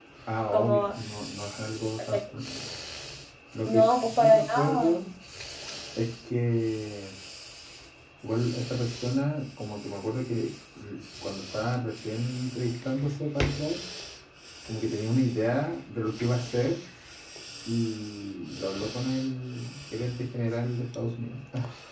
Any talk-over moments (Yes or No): Yes